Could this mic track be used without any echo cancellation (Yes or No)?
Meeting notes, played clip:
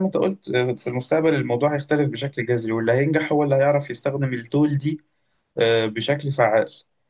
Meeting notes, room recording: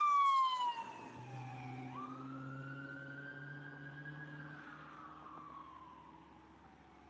Yes